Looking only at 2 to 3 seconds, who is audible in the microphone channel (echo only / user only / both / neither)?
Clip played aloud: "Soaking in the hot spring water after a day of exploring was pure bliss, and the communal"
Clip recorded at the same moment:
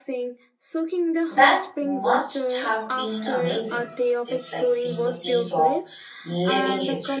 both